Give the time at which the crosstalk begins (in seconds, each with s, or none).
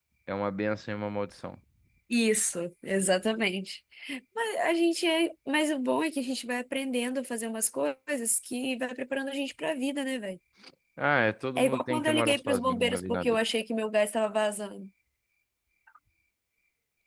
11.6 s